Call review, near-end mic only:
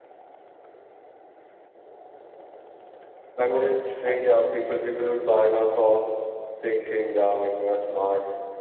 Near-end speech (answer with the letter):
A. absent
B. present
A